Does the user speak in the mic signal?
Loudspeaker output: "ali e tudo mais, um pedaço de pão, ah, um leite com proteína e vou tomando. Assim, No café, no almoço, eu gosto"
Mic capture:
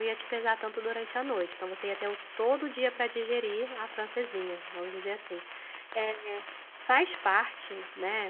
Yes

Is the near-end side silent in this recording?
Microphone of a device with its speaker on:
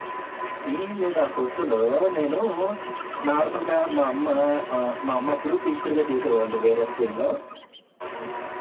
No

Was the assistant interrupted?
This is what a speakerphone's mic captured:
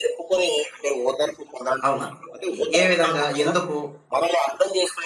Yes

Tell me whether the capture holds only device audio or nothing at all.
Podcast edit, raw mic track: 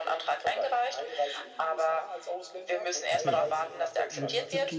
No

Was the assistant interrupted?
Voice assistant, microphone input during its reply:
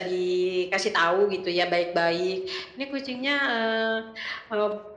No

